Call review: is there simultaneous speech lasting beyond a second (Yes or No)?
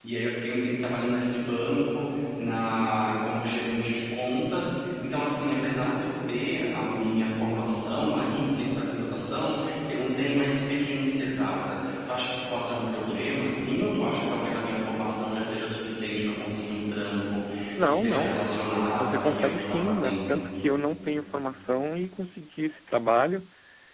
Yes